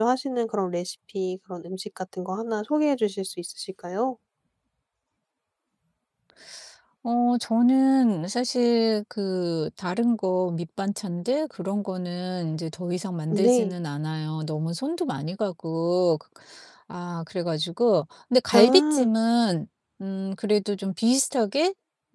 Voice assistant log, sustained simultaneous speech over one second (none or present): none